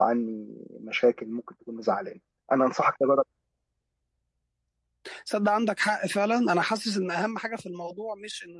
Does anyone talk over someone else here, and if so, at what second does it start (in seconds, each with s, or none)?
none